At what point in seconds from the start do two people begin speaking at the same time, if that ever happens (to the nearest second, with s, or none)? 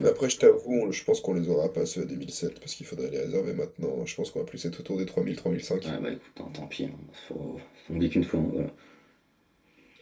none